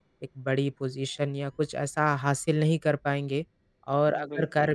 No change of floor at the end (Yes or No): Yes